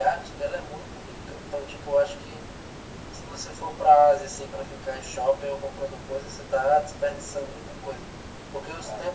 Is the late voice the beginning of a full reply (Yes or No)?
No